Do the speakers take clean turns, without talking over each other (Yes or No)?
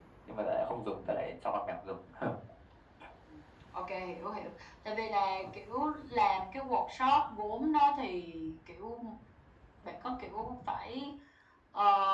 Yes